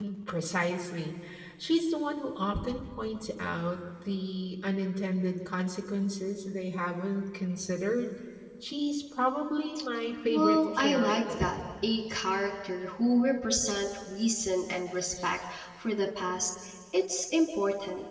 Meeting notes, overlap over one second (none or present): present